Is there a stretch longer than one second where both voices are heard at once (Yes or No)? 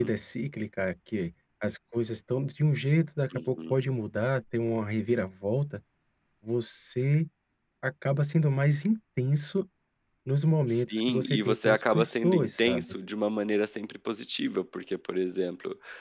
Yes